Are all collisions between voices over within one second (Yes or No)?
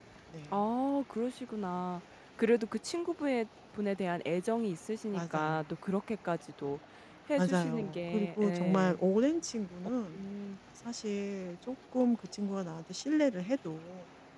No